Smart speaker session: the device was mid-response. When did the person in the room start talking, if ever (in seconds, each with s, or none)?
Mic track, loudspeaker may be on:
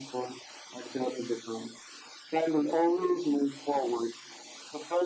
none